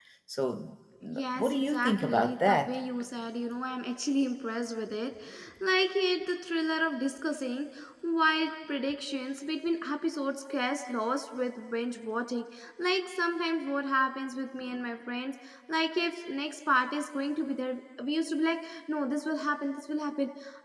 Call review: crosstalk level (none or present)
present